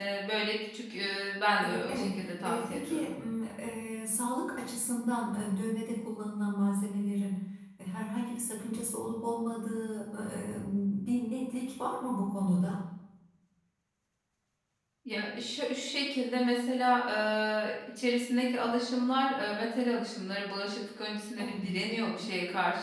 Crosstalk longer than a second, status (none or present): present